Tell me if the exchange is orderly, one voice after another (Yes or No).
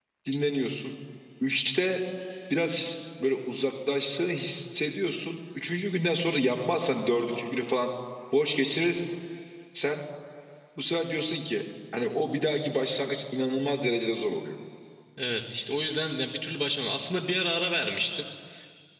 Yes